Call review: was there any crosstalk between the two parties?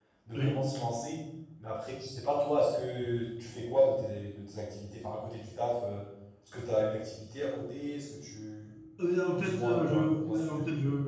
Yes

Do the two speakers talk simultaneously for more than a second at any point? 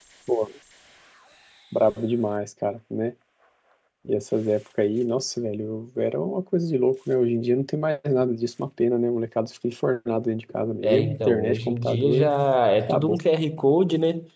Yes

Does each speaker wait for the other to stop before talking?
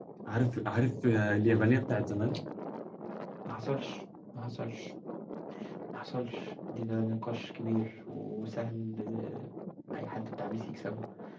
Yes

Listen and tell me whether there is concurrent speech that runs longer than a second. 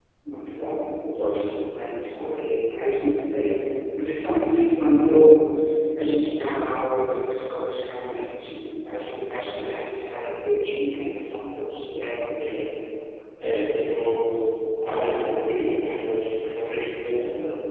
No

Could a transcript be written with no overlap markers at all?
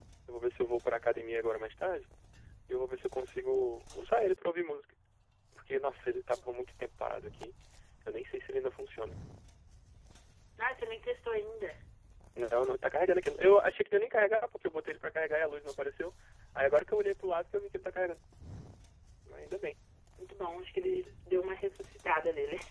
Yes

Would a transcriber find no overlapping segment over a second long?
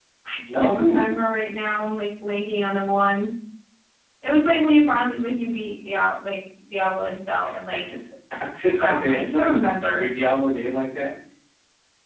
No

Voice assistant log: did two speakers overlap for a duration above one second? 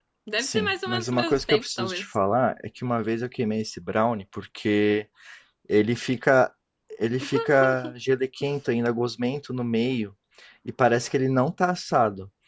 Yes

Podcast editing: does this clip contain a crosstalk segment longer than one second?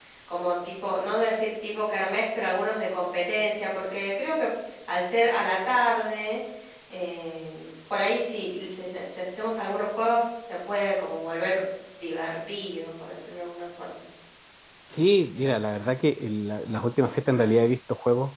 No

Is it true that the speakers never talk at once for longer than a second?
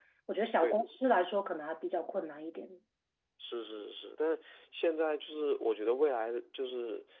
Yes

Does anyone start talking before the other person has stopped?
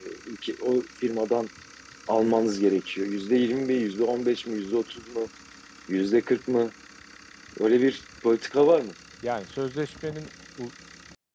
No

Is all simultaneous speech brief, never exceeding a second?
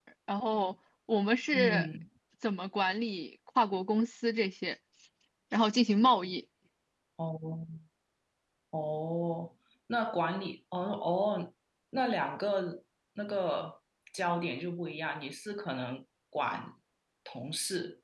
Yes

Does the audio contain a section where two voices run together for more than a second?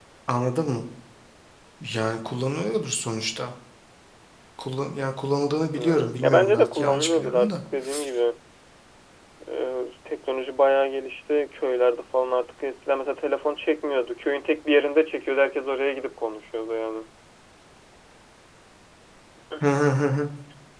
Yes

